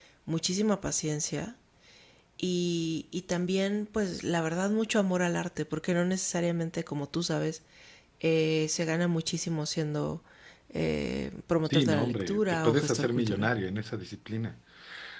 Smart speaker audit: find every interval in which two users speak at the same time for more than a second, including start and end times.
11.7-13.5

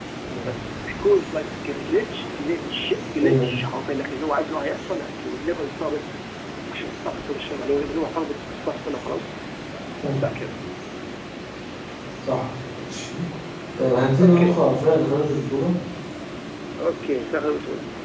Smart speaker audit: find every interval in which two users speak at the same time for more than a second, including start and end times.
none

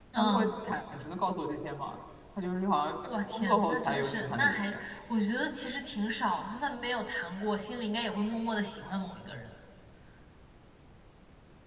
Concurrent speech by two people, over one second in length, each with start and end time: 3.3-4.6

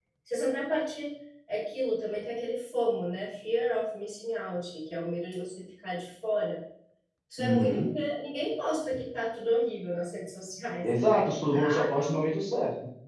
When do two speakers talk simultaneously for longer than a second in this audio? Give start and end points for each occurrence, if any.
10.8-12.2

